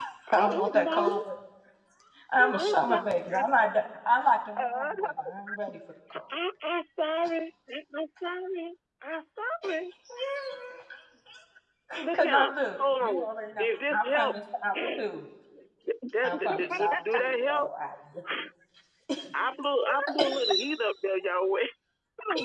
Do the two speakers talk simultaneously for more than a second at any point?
Yes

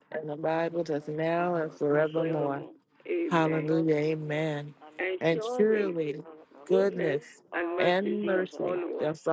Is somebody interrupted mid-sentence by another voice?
Yes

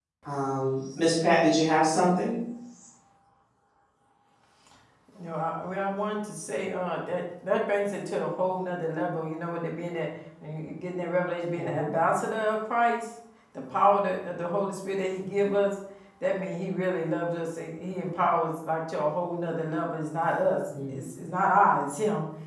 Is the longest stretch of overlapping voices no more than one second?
Yes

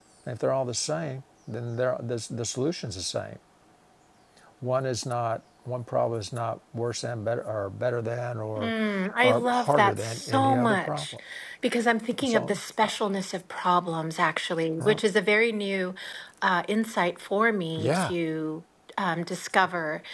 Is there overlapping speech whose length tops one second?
Yes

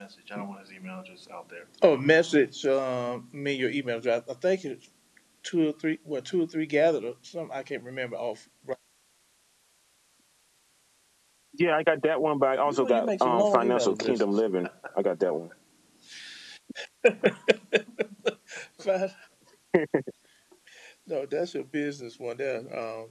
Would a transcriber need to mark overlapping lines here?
Yes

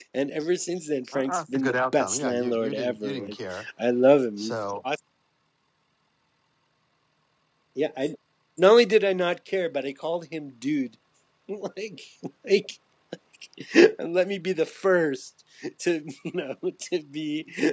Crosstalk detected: Yes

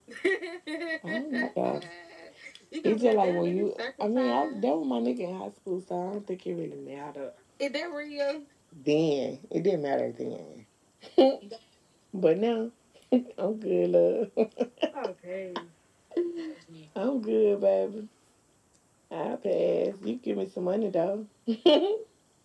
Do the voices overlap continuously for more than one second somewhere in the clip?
Yes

